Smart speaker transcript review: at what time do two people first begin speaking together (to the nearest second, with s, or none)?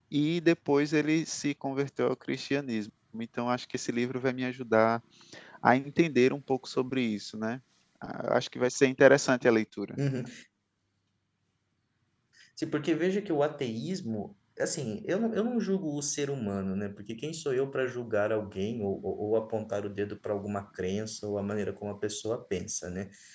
none